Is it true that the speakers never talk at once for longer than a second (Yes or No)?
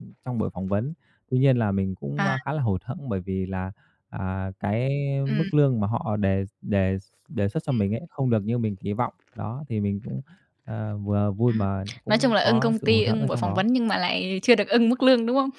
No